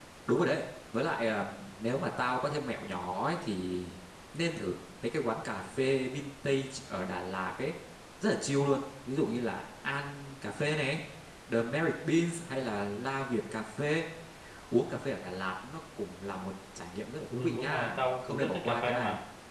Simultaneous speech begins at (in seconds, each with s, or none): 17.3 s